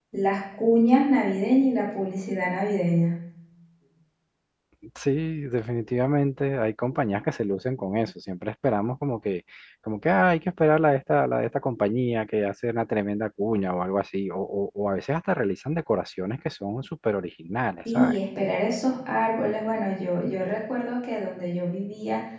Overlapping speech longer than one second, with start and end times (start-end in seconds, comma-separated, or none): none